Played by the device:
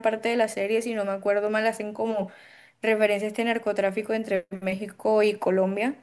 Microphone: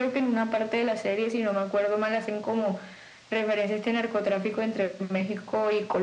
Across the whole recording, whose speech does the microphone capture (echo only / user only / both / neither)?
echo only